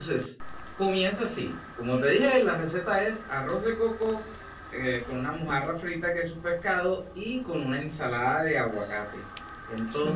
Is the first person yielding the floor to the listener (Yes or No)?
No